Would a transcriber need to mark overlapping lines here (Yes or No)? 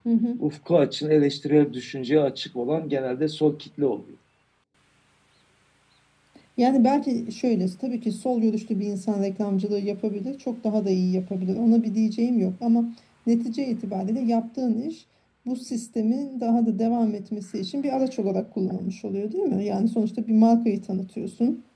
No